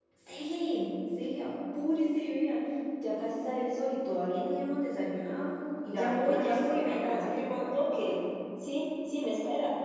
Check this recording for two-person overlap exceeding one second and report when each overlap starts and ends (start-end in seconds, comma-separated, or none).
5.9-8.2